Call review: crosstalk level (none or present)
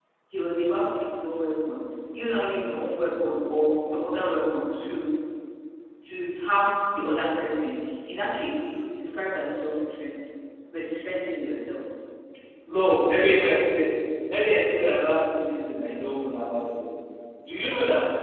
none